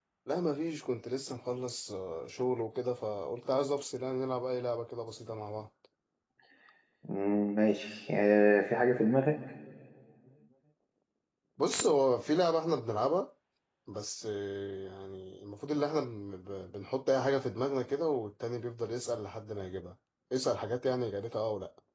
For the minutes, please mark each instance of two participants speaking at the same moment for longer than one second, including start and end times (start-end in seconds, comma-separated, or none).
none